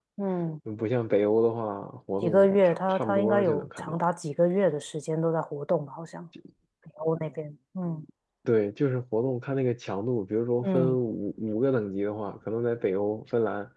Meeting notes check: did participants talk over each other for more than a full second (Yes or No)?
Yes